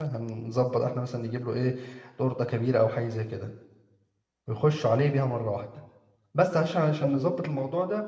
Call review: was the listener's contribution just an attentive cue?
Yes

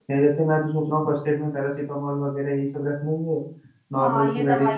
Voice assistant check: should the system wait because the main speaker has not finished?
No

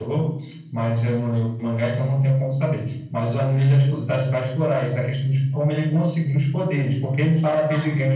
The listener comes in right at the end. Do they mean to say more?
No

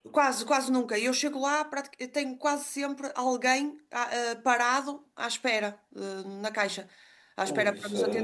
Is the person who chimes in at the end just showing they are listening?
No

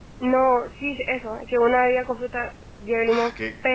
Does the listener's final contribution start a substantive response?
Yes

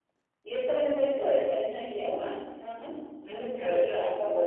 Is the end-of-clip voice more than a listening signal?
Yes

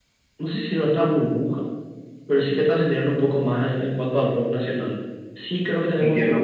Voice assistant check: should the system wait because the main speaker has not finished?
No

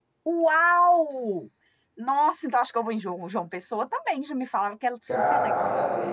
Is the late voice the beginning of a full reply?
Yes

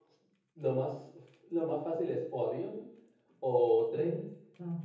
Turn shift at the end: No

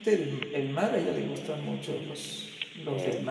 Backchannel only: Yes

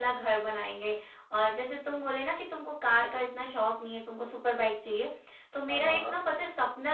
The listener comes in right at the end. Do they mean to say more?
No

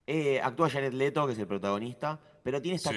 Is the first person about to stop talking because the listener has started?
No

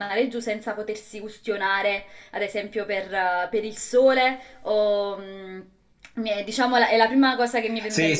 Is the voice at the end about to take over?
Yes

